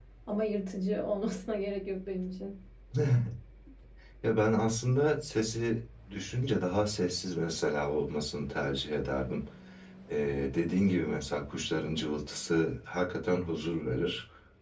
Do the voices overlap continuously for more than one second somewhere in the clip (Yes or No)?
No